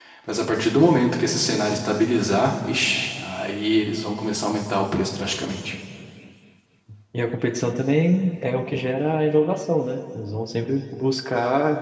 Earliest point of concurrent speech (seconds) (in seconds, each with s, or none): none